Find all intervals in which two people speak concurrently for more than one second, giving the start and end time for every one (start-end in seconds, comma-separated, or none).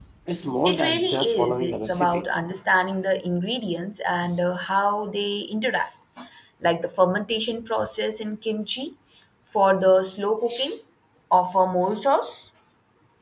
0.7-2.2